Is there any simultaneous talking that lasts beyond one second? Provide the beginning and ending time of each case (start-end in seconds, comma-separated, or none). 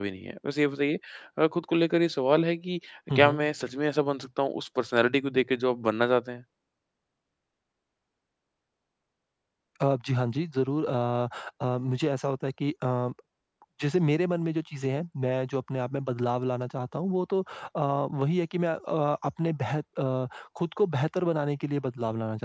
none